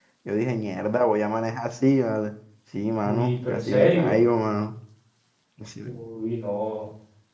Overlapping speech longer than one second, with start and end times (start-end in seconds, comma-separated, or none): 3.0-4.2